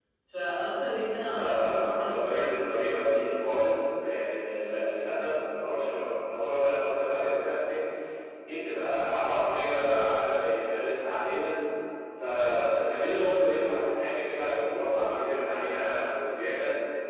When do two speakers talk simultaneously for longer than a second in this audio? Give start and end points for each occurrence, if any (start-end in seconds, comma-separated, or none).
1.2-2.5